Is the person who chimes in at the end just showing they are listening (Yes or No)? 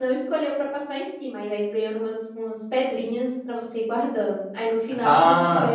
No